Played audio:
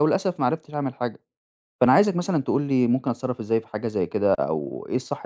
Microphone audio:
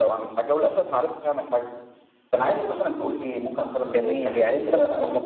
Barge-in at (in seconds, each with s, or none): 3.8 s